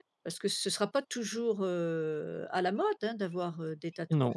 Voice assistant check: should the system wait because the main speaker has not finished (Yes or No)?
No